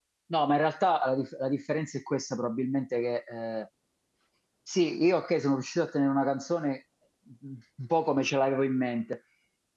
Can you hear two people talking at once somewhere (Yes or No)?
No